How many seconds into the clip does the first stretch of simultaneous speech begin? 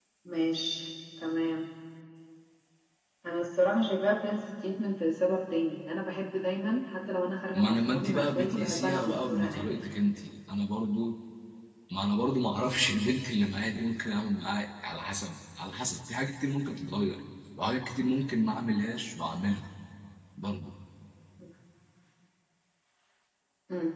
8 s

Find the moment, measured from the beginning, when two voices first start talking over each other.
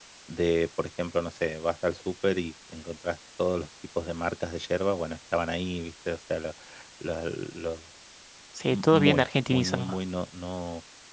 9 s

